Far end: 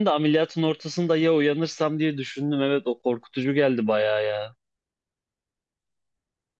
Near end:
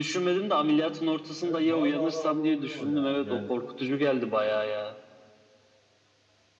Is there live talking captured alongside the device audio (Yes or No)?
Yes